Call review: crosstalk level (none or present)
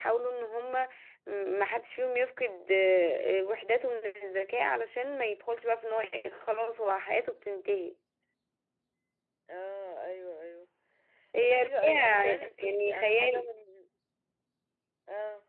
present